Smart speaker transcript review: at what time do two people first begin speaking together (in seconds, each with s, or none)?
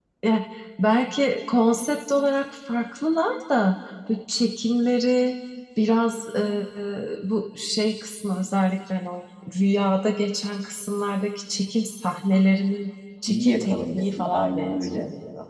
13.3 s